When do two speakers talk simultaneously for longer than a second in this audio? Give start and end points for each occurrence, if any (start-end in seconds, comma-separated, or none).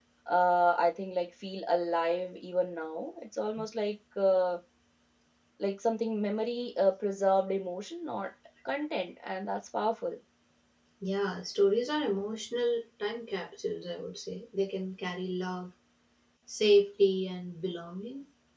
none